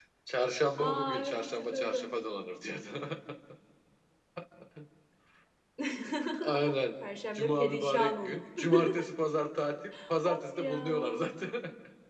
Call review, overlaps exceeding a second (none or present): present